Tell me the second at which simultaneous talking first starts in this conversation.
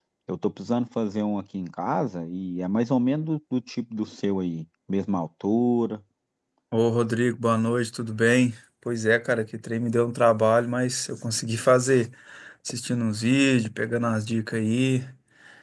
none

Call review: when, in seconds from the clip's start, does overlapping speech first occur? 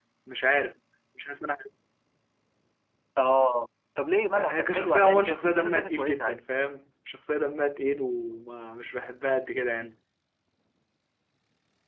4.4 s

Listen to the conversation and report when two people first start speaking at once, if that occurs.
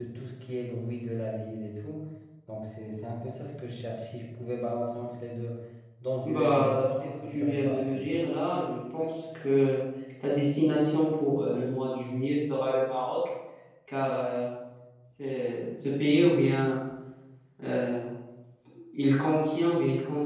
6.2 s

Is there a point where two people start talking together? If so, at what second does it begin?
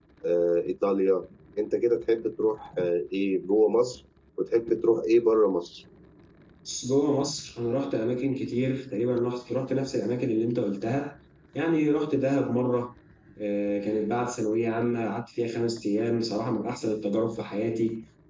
none

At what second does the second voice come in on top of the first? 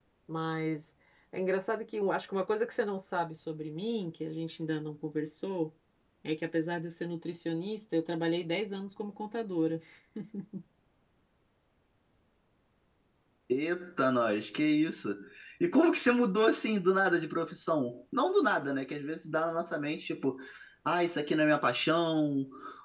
none

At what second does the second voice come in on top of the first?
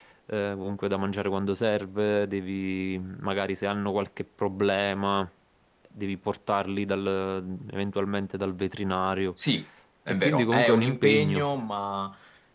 10.1 s

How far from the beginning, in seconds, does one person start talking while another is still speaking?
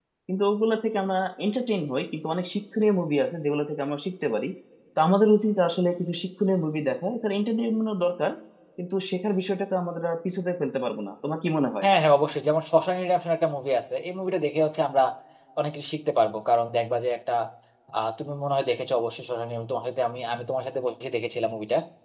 none

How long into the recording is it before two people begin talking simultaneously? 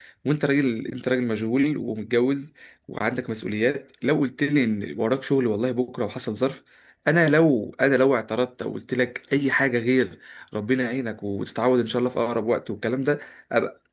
none

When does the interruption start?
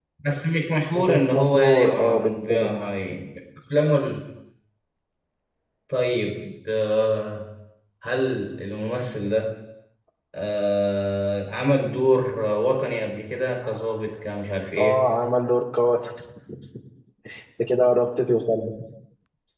0.9 s

